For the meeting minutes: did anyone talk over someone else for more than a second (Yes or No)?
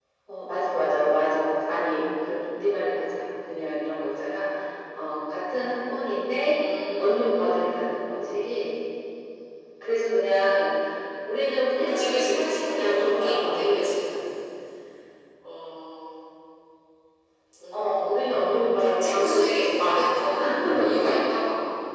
Yes